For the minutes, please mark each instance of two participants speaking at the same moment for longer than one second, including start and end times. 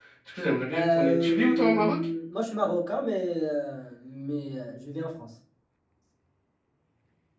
0.7-1.9

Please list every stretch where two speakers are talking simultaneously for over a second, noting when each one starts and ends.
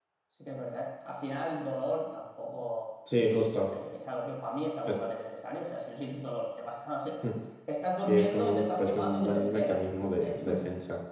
8.0-10.4

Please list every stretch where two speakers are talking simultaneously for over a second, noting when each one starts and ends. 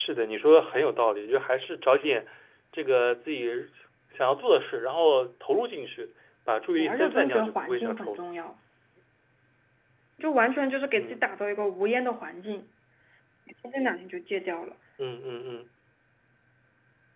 6.8-8.2

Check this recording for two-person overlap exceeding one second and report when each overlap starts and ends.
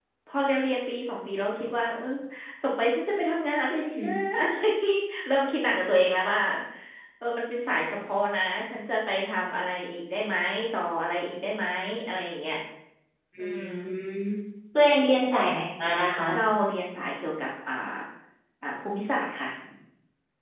none

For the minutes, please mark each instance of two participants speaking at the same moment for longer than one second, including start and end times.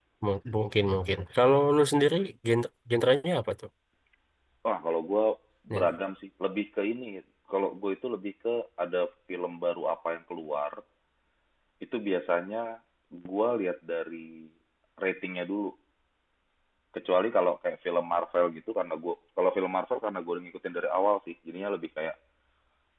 none

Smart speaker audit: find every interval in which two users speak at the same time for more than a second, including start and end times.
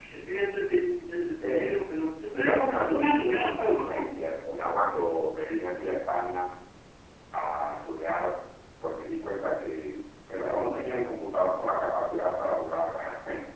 2.3-4.1

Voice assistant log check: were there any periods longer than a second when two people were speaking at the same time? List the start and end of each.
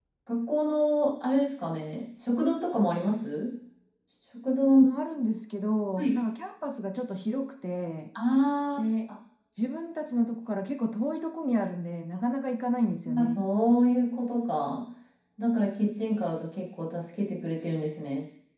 none

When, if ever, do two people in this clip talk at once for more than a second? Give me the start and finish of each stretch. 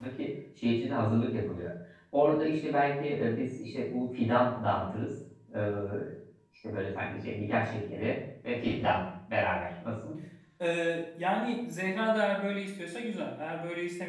none

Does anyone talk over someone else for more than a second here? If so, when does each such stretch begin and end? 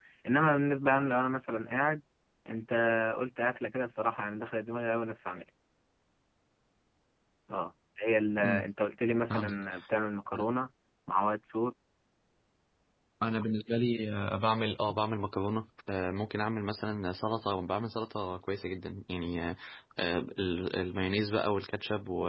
none

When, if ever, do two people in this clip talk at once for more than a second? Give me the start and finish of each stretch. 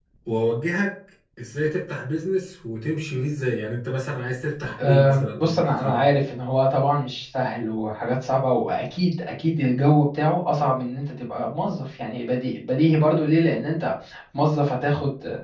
4.8-6.0

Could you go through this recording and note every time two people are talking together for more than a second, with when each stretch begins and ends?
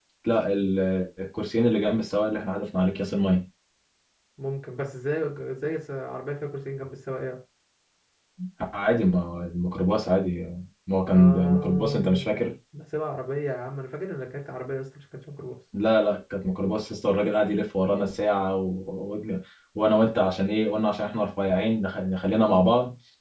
11.1-12.5

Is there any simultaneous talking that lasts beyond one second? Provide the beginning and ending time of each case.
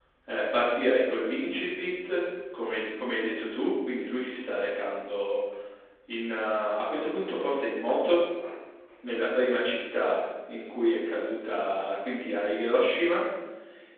none

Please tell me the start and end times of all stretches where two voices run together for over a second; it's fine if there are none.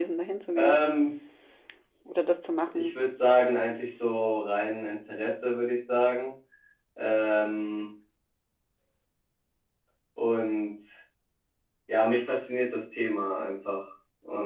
none

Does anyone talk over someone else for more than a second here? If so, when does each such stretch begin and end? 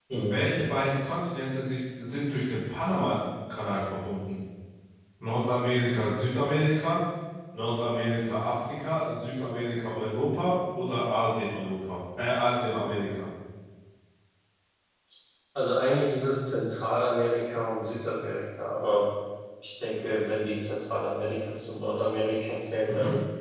none

